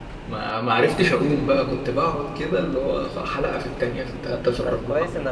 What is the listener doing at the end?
taking over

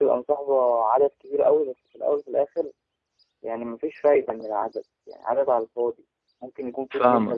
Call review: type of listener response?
listening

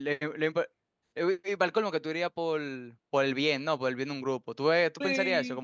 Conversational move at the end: taking over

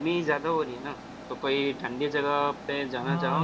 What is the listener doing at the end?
taking over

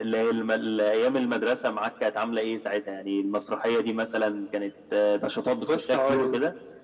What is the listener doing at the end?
taking over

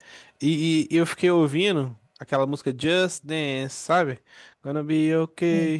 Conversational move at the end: listening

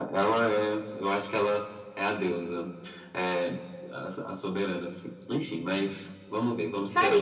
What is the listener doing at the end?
taking over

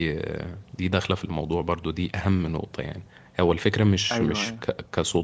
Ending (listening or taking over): listening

